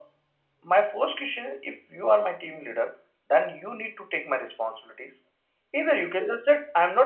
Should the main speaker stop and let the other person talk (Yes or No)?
No